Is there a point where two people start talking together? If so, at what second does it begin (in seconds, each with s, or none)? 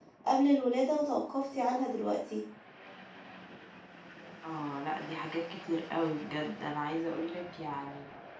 none